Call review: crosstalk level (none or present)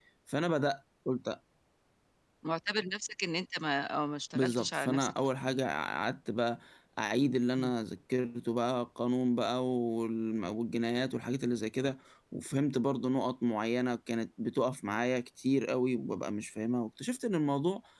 present